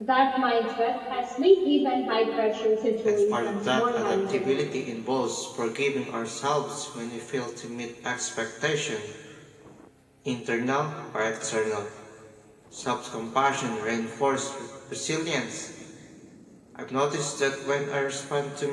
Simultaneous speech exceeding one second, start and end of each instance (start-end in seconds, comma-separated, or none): 3.0-4.6